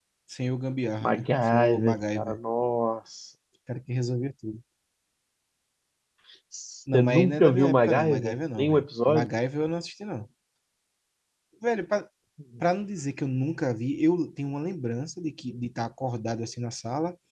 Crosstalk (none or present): present